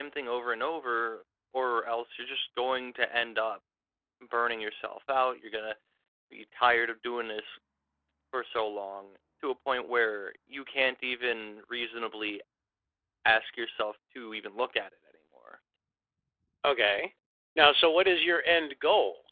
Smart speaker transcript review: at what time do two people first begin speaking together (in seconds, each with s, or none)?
none